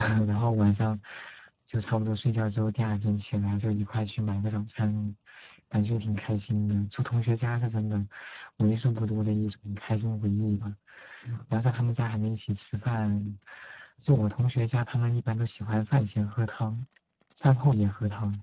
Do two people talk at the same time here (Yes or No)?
No